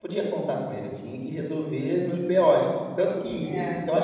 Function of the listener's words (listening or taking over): listening